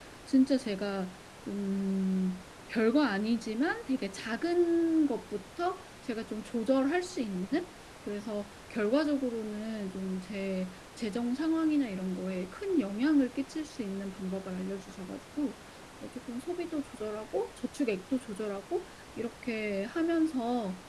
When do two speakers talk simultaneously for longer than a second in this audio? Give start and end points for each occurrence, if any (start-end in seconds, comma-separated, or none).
none